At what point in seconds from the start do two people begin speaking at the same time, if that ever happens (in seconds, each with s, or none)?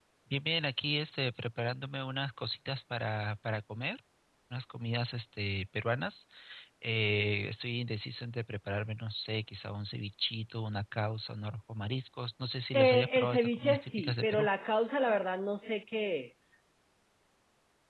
12.7 s